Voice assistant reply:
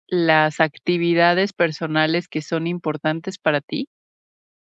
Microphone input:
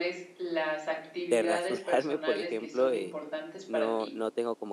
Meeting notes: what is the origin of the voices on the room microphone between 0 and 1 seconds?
echo only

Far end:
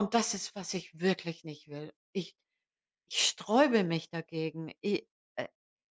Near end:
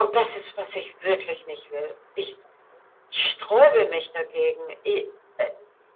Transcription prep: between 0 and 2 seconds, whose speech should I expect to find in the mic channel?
echo only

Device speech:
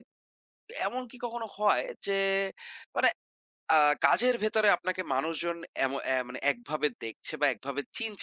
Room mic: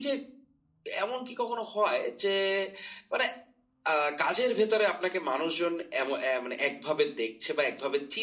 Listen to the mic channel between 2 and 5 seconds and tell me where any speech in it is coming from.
echo only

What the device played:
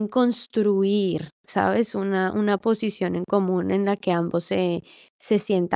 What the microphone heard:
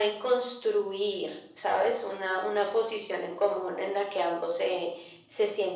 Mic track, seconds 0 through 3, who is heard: echo only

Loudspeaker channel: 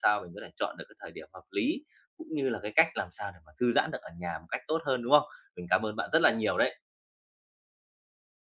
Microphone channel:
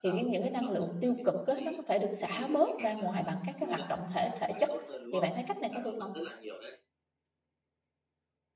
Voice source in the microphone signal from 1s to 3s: both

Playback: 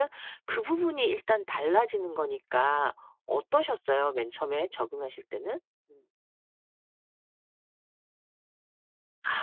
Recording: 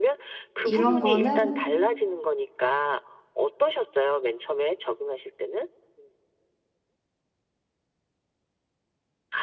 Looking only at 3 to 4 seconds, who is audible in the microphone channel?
echo only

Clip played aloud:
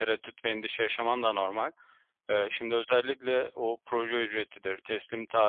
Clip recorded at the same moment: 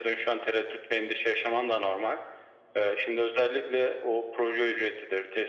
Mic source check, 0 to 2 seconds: echo only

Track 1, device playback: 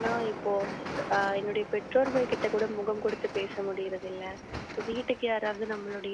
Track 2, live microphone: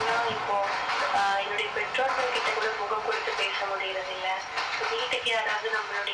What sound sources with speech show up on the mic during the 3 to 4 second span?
echo only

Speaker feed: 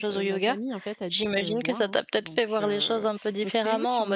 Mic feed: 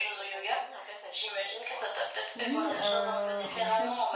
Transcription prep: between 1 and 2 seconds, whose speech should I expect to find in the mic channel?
echo only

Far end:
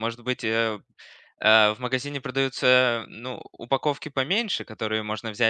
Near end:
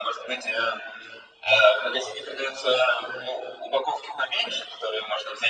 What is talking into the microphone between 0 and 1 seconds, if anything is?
echo only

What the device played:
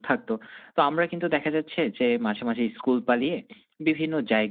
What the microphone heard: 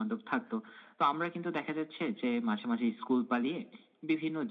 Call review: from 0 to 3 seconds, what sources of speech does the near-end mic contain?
echo only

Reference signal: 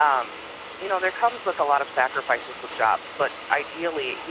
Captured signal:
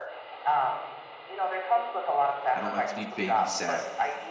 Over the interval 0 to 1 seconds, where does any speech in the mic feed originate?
echo only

